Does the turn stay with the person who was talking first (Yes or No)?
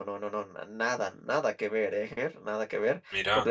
Yes